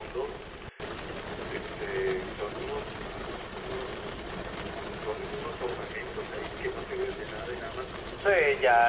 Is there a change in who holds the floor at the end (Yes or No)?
Yes